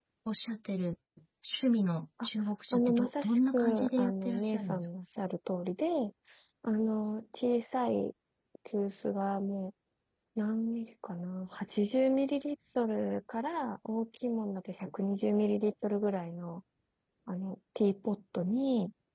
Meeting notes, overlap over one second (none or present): present